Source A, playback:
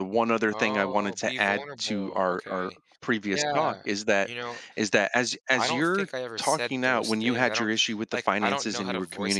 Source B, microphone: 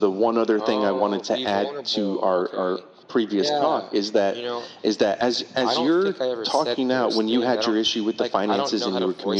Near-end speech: none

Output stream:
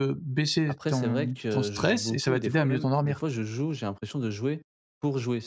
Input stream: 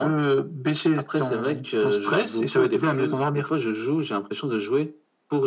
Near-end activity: none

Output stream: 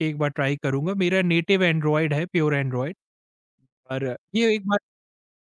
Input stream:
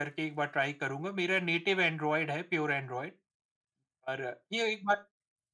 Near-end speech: none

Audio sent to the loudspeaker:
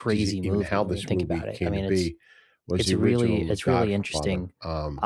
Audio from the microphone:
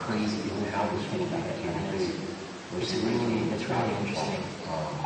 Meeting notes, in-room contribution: none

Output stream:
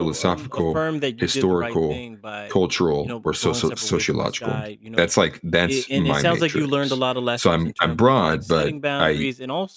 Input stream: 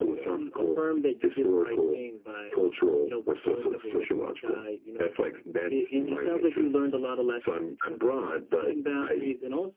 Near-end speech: none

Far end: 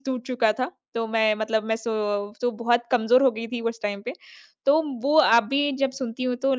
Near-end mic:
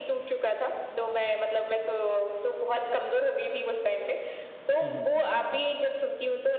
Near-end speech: present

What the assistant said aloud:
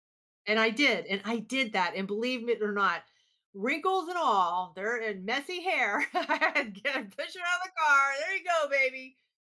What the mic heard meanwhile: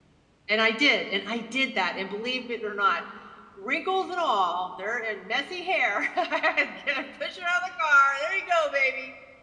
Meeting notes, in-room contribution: none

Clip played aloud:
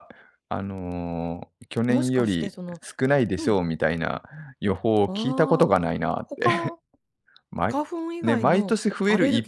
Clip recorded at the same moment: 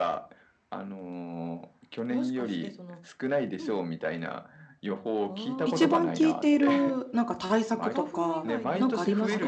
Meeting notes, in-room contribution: present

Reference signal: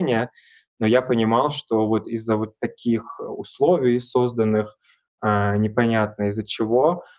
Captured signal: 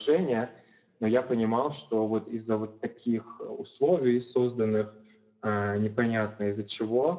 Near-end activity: none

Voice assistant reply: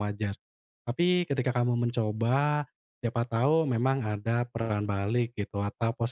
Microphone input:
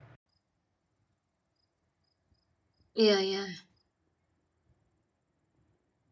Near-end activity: present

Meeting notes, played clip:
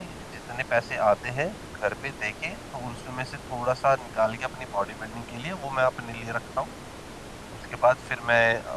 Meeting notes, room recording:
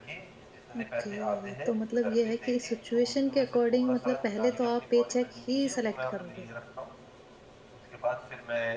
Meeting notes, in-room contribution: present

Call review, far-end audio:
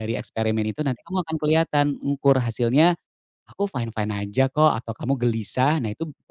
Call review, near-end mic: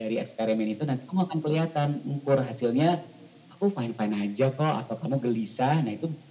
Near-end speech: none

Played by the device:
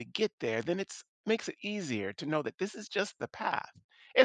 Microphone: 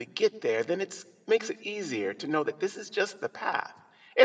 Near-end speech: none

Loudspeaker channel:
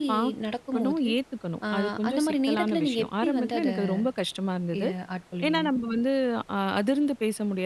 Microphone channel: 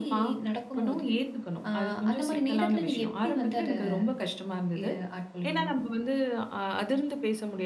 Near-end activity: none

